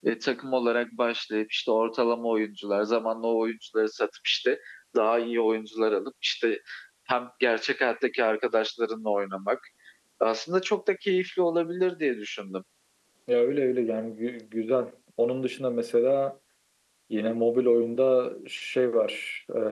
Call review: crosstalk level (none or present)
none